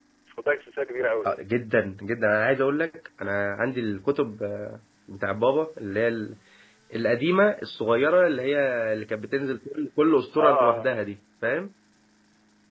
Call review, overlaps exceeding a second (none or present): none